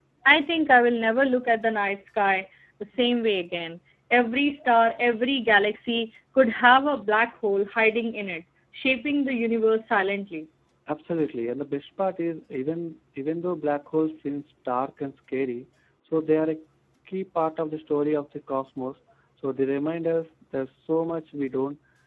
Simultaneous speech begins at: none

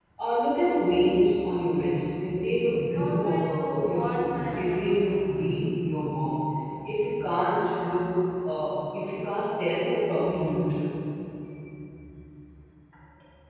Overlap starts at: 2.9 s

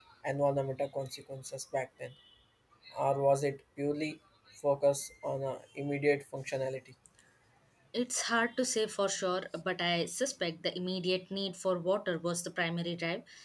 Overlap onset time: none

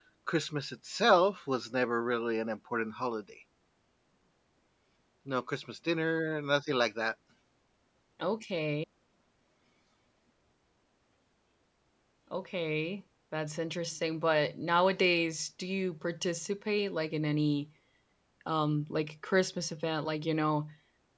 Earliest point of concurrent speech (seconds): none

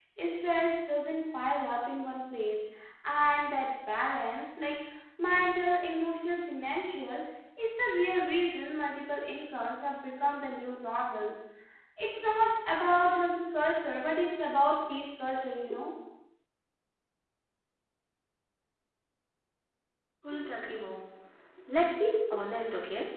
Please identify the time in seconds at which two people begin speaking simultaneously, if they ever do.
none

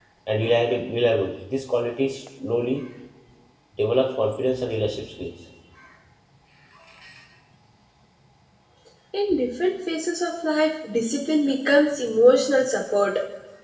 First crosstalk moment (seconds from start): none

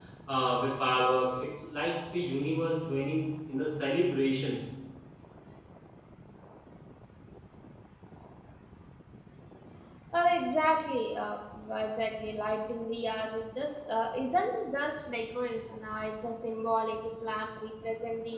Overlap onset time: none

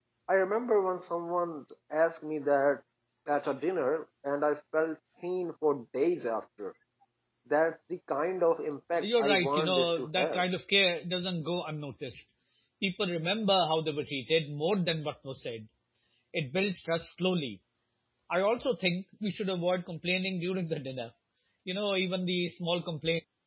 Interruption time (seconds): 9.0 s

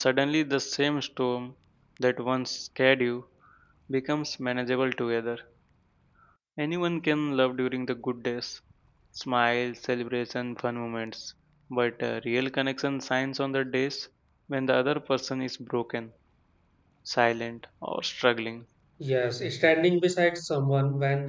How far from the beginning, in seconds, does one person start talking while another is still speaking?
none

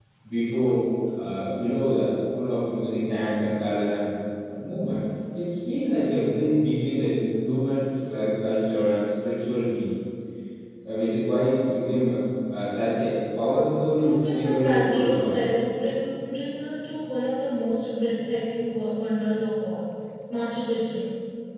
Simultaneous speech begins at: 14.0 s

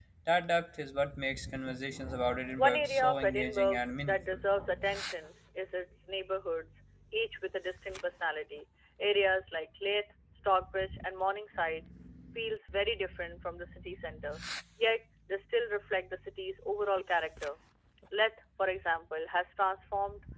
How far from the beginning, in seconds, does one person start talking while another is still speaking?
2.6 s

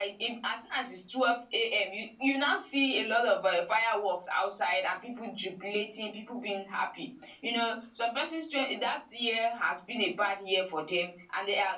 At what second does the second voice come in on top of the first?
none

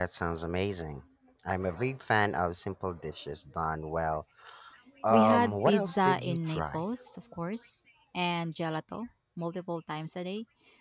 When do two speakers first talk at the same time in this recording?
5.1 s

